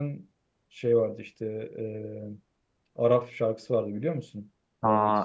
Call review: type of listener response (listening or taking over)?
taking over